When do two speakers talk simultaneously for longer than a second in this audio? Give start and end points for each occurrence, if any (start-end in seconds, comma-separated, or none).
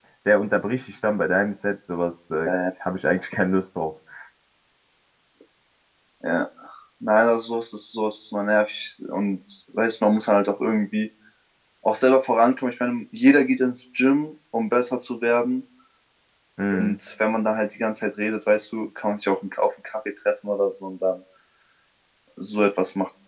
none